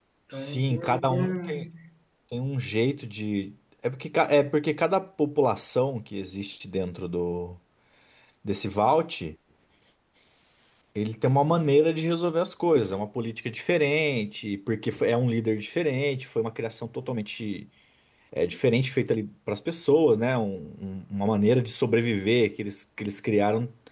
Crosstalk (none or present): present